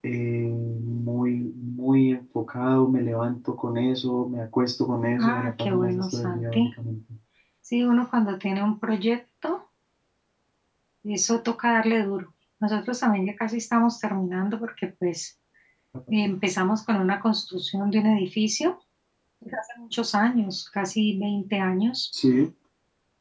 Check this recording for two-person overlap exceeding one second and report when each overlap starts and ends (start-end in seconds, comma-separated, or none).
5.2-6.7